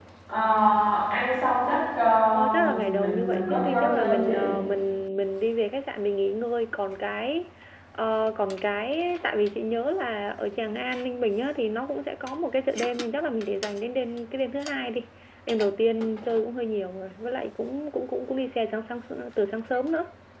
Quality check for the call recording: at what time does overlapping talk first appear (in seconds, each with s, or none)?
2.5 s